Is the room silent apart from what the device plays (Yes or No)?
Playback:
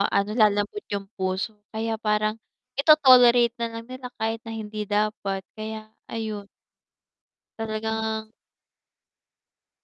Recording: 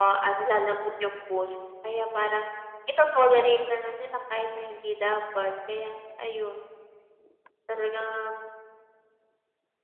Yes